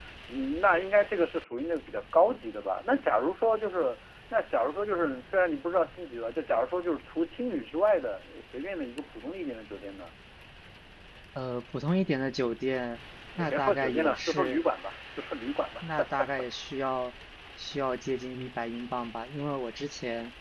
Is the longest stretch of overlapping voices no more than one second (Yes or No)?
No